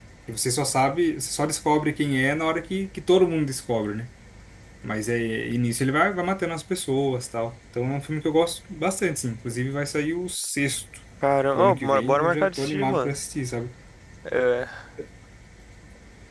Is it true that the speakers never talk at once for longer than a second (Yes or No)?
No